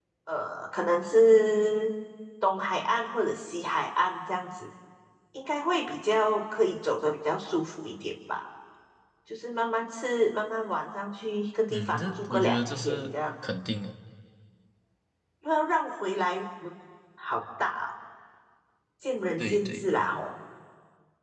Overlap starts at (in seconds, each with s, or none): 11.7 s